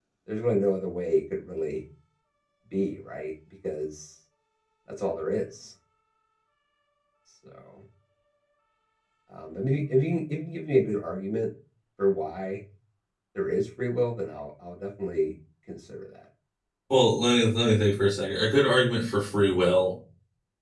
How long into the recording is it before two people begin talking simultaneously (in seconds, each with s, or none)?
none